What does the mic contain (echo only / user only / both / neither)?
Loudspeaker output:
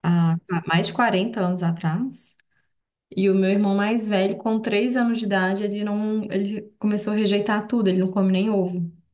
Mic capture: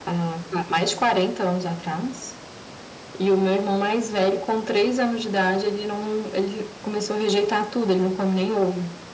echo only